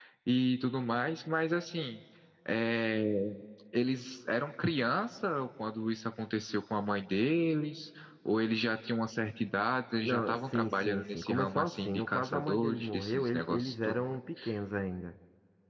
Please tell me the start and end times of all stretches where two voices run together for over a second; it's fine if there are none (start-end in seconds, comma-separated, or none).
10.0-14.0